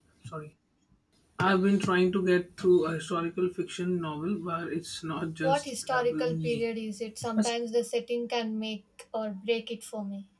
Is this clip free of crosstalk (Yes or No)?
No